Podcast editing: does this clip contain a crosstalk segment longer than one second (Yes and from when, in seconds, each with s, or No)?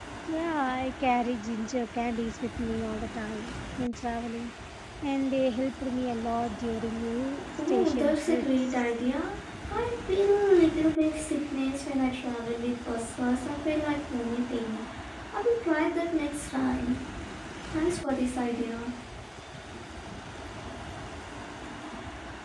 Yes, from 7.6 s